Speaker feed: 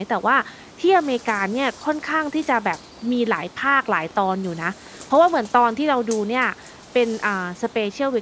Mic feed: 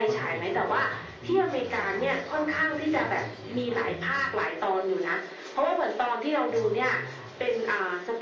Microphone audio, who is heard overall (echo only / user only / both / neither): both